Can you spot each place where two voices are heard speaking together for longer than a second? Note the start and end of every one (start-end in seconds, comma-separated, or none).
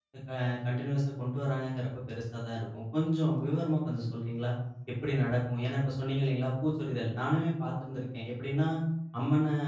none